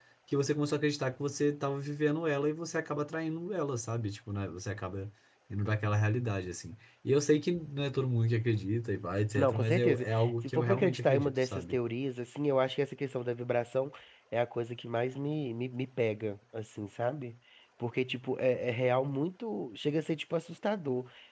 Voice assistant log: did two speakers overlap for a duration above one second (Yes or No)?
Yes